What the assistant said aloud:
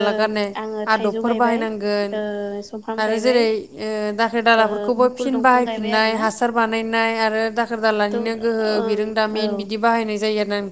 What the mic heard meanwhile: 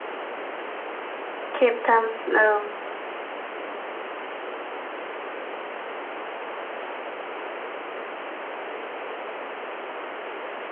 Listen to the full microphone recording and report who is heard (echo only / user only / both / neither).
user only